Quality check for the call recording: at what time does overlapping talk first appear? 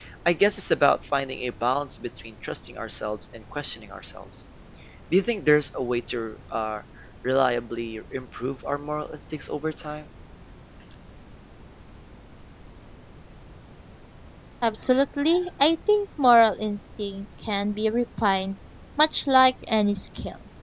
none

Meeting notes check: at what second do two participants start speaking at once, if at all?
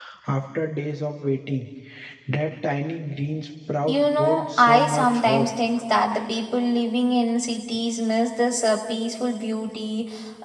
3.9 s

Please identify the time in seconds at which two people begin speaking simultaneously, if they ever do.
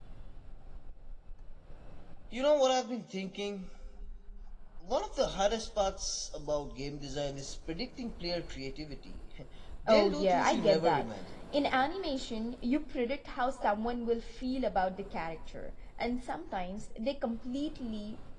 9.9 s

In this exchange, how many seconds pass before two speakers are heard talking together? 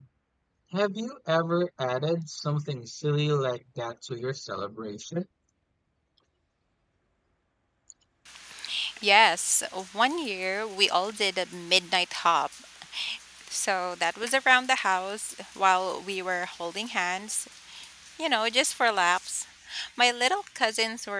none

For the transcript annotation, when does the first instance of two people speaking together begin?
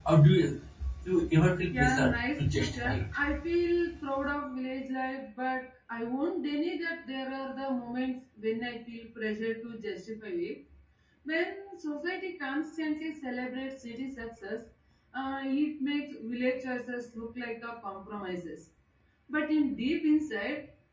1.7 s

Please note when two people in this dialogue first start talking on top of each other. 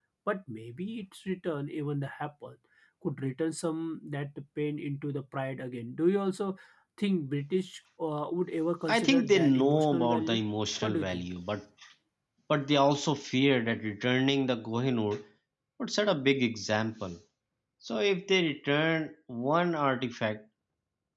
8.9 s

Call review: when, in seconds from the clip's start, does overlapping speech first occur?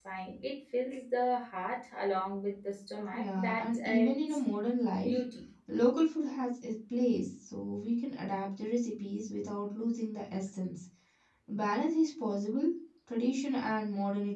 3.1 s

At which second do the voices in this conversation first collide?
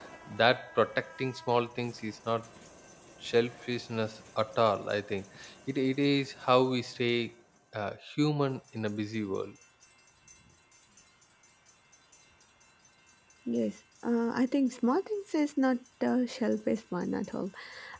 none

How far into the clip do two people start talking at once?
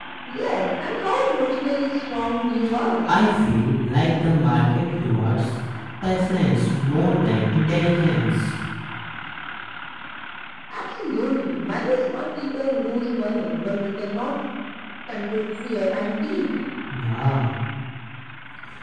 none

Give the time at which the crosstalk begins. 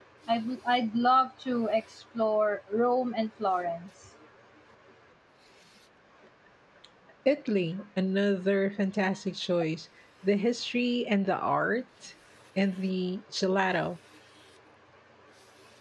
none

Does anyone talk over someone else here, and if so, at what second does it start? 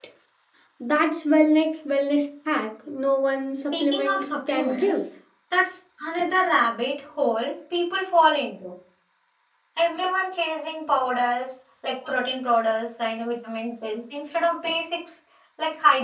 3.5 s

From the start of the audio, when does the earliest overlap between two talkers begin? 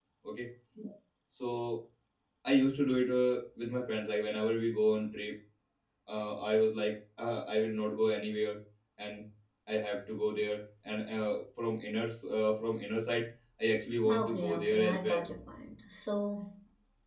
14.0 s

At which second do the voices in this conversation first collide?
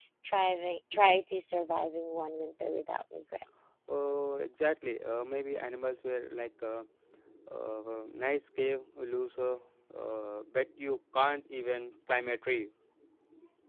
none

